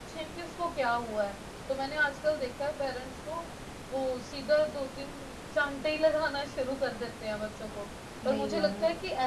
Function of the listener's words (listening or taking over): listening